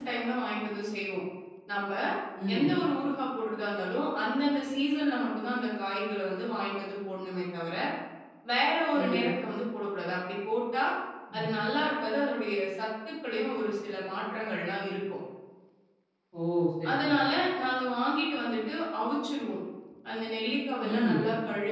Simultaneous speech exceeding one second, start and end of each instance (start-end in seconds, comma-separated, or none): none